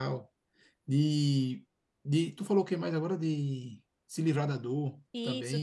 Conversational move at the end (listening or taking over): taking over